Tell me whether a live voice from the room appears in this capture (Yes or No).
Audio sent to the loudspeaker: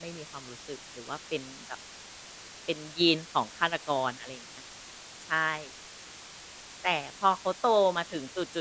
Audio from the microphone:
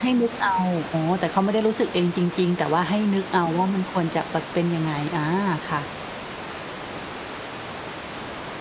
Yes